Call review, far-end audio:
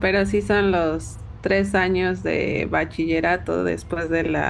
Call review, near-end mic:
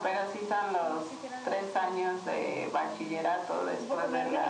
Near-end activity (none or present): present